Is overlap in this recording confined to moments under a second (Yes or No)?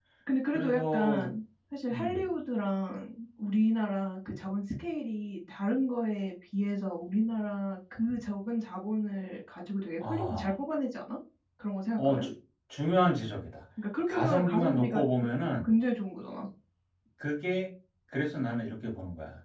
No